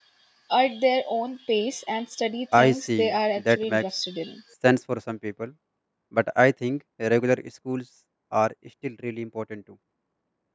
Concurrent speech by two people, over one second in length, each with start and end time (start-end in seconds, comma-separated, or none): 2.5-3.8